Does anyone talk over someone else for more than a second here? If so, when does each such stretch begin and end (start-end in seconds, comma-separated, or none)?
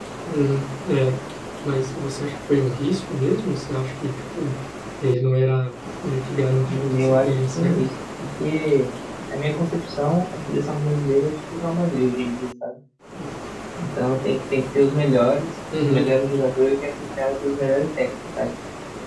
6.7-7.9